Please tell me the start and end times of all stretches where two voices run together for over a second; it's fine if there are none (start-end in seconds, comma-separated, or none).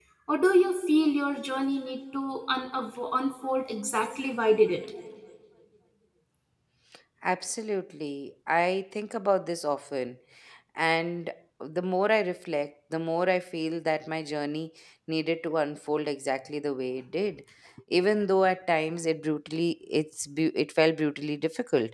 none